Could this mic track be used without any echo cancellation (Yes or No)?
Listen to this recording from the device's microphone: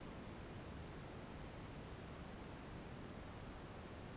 Yes